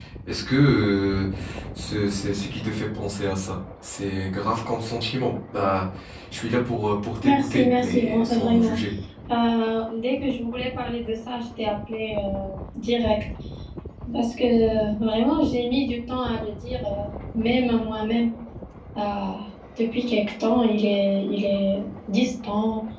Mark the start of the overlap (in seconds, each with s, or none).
7.2 s